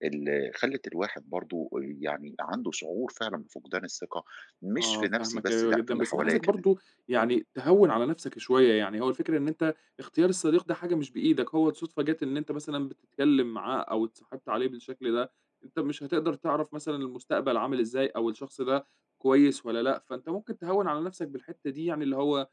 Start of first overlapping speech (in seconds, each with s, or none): 4.8 s